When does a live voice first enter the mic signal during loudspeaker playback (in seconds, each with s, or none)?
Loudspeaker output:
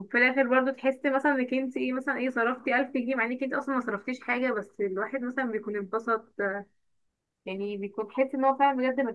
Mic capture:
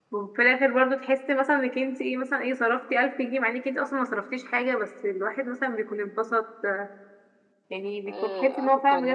8.1 s